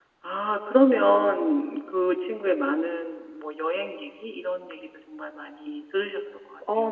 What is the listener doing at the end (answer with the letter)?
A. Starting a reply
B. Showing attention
A